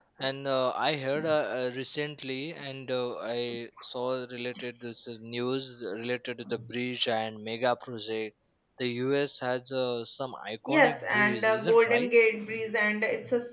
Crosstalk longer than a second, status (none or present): present